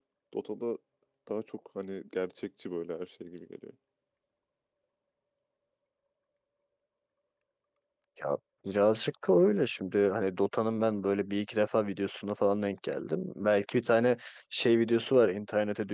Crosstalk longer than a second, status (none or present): none